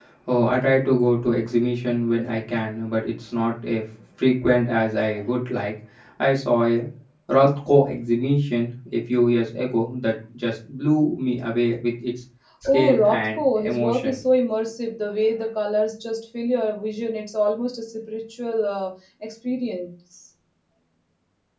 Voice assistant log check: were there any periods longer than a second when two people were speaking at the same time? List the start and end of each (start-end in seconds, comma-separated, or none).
12.7-14.2